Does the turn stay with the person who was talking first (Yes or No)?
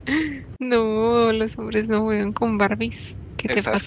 No